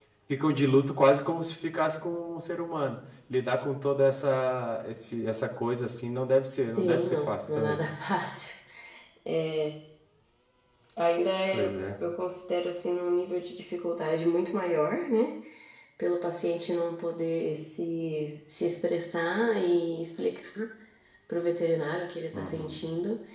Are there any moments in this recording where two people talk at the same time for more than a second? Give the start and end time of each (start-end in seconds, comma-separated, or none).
6.6-7.8